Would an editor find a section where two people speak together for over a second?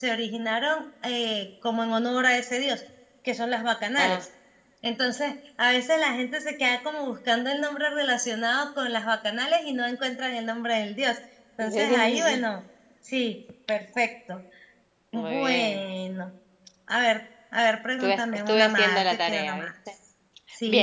Yes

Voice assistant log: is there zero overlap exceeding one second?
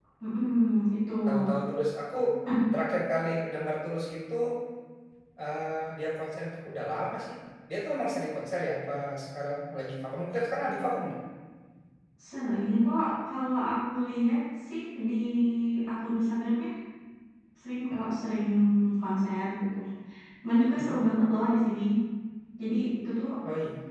Yes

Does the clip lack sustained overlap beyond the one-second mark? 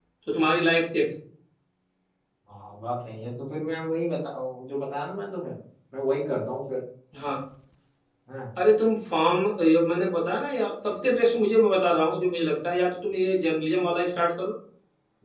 Yes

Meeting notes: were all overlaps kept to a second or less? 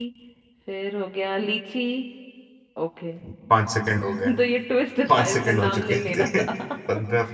No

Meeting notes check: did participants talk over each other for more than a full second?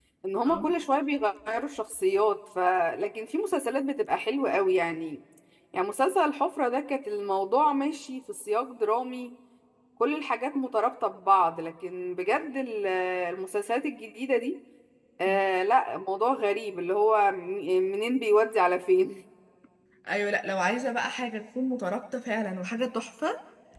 No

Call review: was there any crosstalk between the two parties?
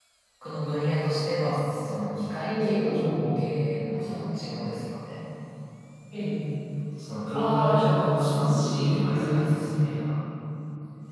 Yes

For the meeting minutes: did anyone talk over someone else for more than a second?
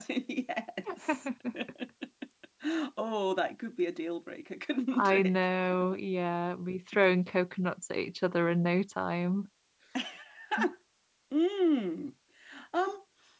No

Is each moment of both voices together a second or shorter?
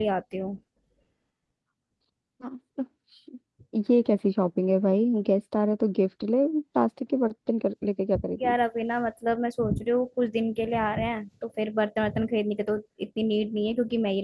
Yes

